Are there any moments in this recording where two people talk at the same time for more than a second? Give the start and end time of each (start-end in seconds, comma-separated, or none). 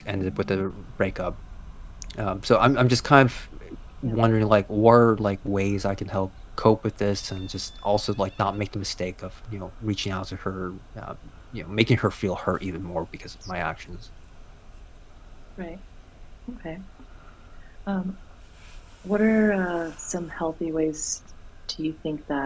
none